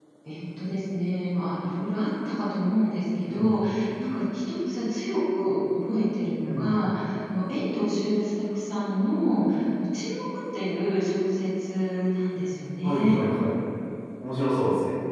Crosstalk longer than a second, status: none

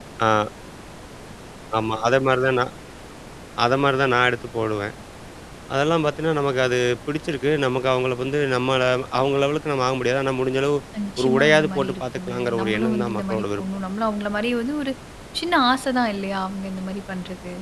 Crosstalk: present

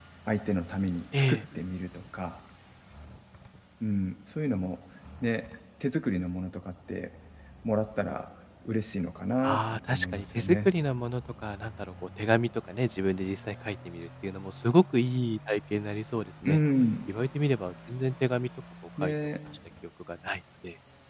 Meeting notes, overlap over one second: present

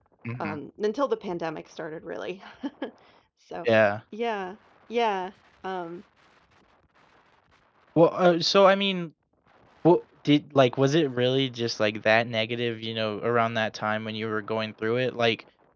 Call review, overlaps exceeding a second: none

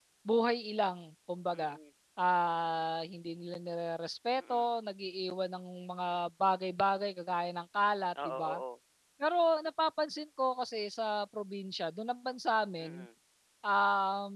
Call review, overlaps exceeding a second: none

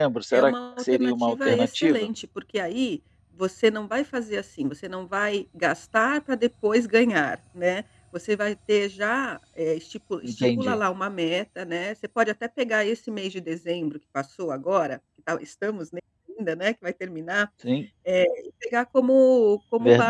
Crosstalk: present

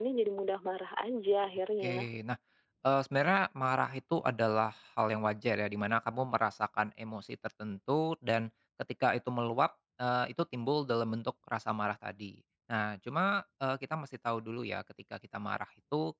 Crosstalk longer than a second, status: none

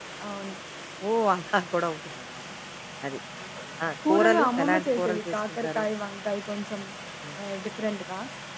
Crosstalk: present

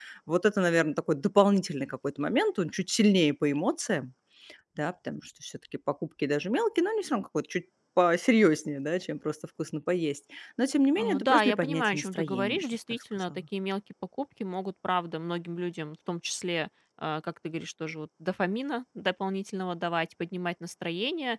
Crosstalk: present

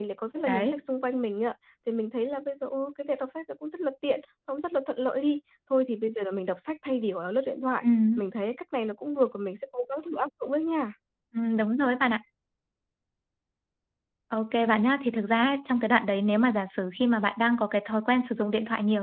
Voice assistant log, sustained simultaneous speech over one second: none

